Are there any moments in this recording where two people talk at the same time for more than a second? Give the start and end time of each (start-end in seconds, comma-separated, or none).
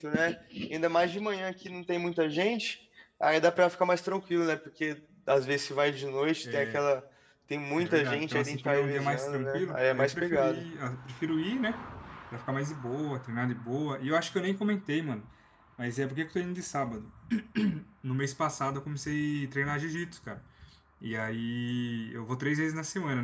7.8-10.6